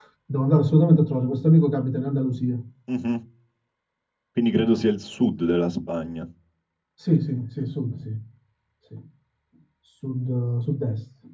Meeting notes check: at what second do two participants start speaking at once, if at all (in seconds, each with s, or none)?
none